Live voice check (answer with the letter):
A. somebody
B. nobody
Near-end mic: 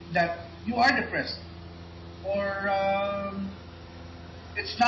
B